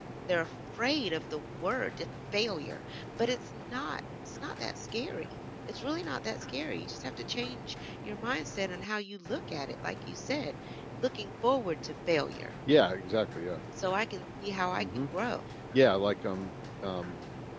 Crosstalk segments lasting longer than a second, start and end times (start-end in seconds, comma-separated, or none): none